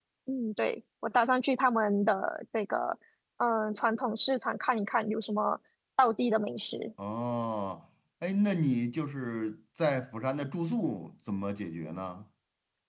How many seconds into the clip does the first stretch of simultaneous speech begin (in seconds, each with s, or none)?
none